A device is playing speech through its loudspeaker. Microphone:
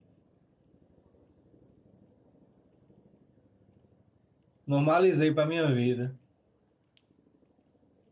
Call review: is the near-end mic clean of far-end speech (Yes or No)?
Yes